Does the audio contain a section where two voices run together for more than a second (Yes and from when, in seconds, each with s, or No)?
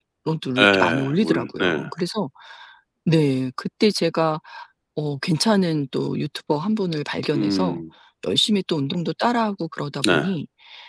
Yes, from 0.6 s